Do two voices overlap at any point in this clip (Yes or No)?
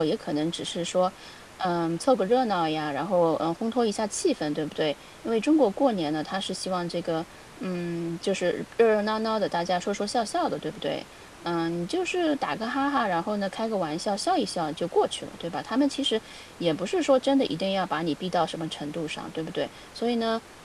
No